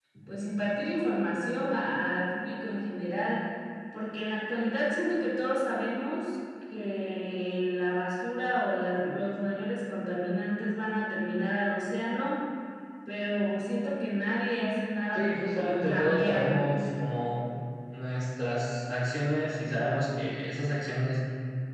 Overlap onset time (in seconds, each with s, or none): 15.2 s